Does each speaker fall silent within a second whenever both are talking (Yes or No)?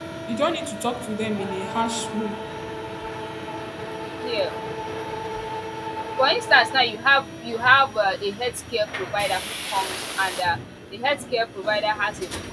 Yes